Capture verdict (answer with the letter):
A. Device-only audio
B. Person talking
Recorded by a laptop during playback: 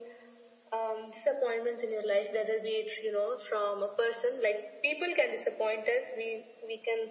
A